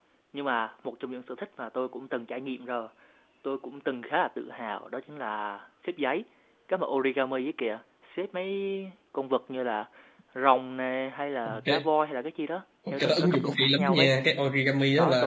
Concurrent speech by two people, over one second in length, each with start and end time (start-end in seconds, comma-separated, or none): 12.9-14.1